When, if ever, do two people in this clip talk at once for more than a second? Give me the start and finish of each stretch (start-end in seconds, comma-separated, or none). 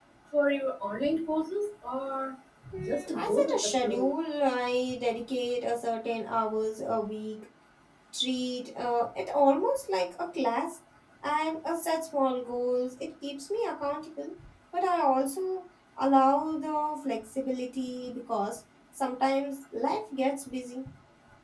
2.8-4.1